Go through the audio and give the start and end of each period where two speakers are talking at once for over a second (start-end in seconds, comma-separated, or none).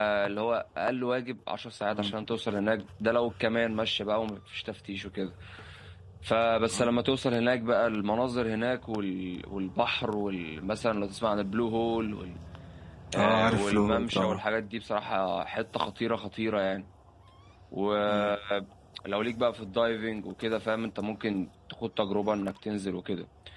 13.2-14.4